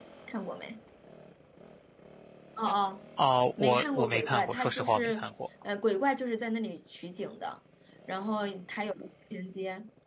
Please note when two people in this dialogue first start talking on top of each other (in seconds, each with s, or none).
3.6 s